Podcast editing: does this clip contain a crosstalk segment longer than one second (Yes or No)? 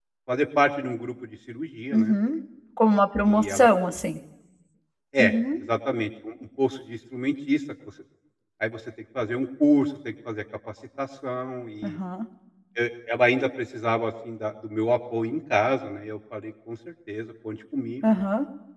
No